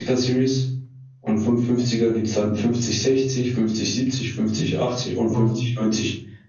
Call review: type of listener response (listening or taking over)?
listening